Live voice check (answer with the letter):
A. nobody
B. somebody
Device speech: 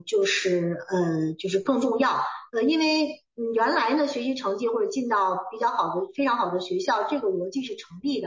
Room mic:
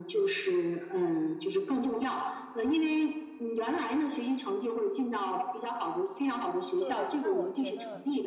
B